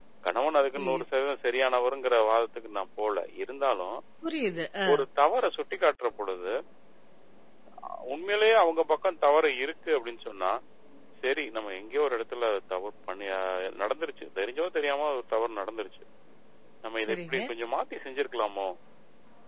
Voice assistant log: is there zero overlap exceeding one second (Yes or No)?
Yes